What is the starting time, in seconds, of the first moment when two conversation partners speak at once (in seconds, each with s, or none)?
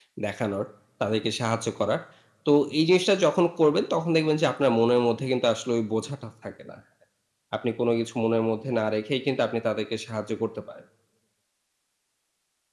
none